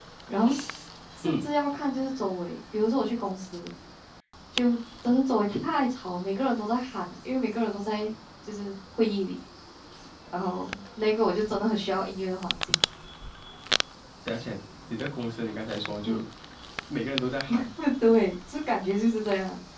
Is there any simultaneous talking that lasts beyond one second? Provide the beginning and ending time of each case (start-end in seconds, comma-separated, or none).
none